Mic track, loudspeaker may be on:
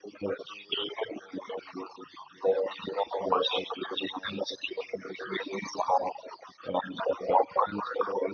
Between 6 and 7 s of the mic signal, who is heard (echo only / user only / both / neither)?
echo only